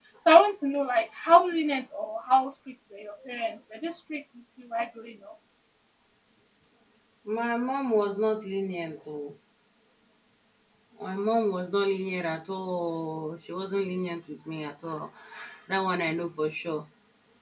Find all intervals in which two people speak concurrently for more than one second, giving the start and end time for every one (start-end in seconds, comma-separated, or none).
none